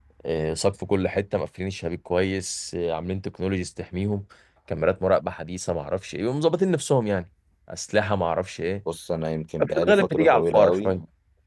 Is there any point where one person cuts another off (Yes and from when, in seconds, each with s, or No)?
Yes, from 9.7 s